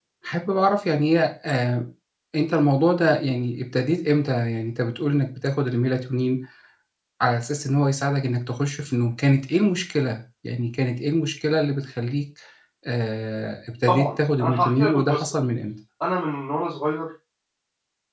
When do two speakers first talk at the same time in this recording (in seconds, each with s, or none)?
13.9 s